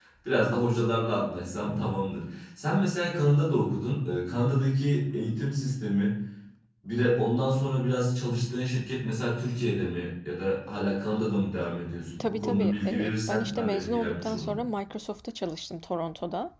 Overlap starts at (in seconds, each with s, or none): 12.2 s